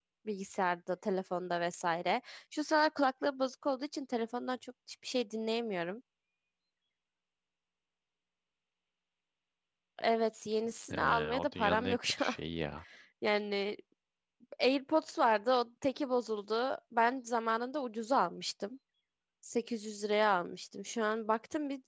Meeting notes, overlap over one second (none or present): present